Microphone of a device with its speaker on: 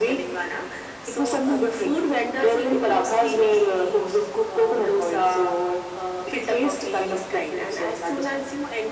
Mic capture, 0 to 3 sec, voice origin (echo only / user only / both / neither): echo only